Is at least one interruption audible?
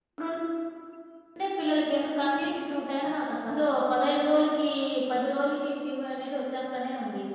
No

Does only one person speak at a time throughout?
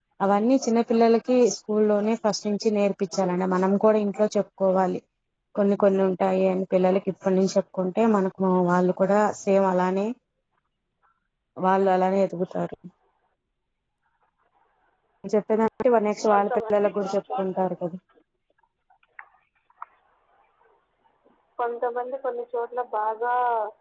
No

